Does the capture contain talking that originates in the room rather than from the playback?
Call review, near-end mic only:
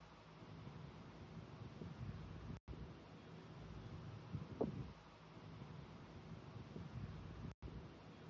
No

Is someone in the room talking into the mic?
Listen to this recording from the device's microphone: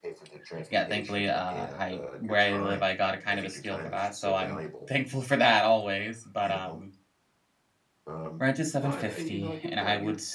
Yes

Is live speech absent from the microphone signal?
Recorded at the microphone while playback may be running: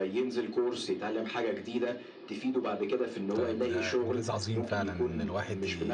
No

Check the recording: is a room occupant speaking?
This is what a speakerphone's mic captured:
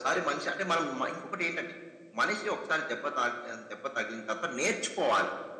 No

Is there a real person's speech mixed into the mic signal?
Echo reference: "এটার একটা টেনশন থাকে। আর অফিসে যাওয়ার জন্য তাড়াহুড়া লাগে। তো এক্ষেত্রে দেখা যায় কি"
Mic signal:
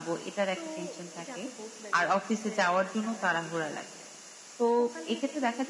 Yes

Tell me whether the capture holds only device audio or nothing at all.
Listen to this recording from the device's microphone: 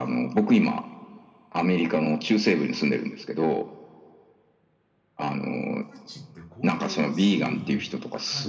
No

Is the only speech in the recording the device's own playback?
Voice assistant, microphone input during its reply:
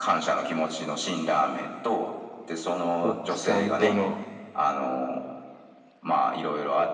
No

